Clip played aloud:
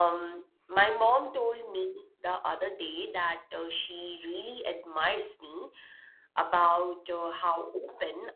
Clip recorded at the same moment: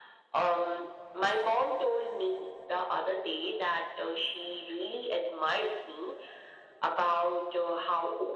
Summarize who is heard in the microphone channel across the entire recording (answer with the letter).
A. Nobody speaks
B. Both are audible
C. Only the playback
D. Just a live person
C